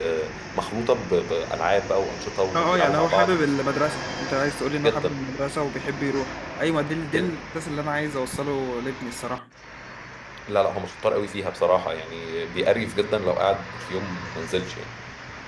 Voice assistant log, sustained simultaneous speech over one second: present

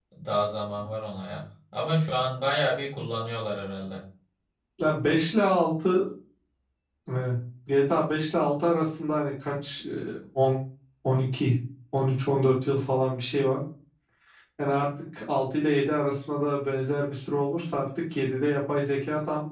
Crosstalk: none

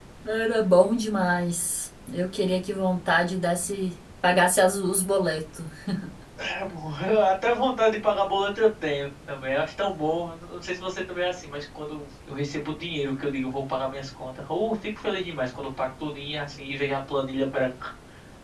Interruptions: none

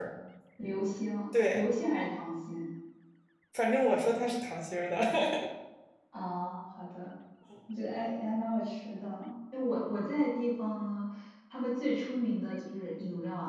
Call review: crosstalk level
none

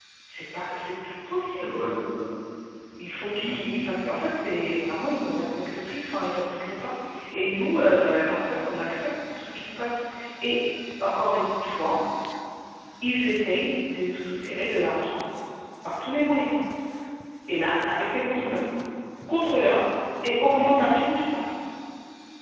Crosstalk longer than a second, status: none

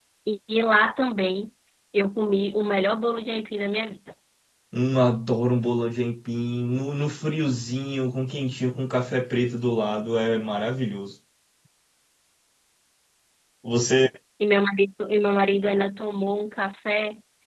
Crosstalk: none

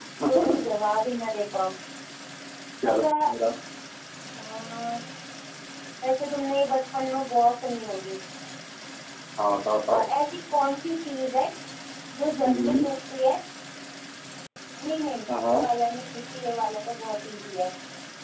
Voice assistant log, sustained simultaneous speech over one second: none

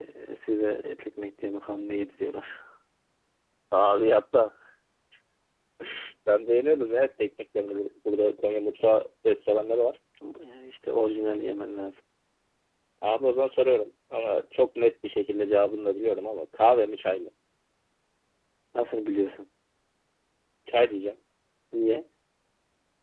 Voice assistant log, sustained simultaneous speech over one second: none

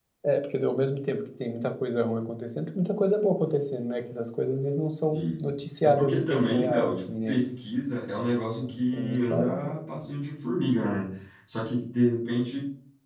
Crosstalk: present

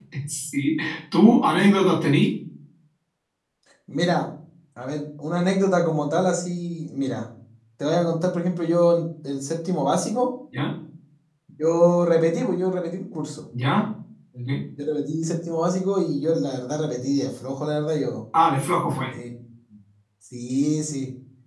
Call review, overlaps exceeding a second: none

